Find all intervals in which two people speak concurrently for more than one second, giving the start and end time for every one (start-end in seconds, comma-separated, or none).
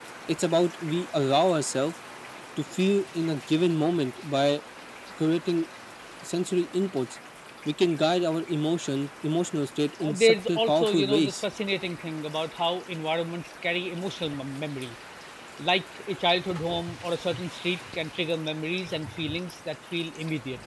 10.0-11.4